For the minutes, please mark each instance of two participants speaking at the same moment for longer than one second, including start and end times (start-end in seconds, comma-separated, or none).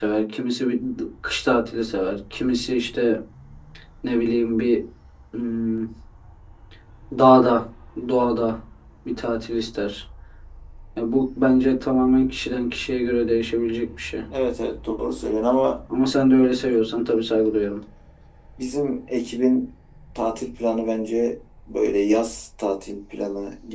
none